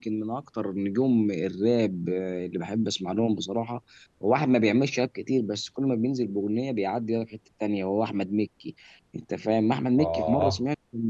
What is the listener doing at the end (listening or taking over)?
listening